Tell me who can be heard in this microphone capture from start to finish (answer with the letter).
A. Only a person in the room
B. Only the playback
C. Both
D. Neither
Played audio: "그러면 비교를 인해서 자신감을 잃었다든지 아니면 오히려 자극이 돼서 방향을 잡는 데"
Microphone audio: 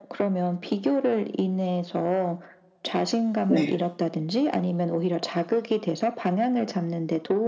C